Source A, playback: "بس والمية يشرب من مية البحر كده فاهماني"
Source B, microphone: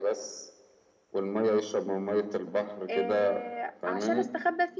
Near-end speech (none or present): present